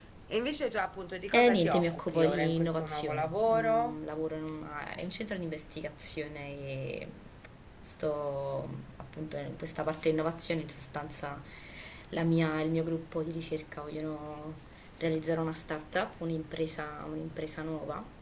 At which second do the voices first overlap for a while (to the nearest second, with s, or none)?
1 s